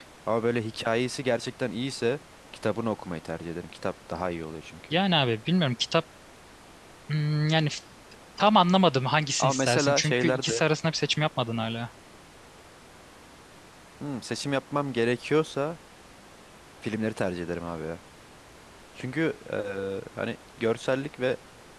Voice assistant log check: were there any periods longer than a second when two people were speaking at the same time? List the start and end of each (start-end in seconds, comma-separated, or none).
9.4-10.6